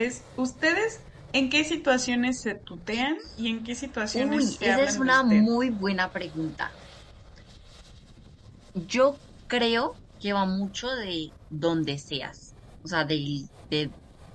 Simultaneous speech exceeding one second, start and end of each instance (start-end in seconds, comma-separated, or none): 4.1-5.5